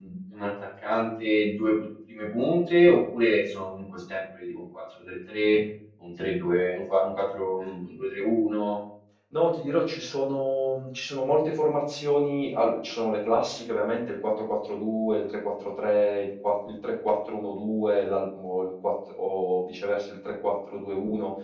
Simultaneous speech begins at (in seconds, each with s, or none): none